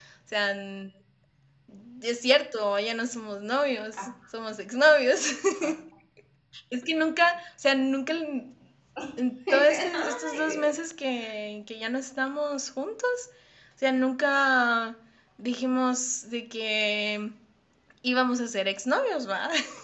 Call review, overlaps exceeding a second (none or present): present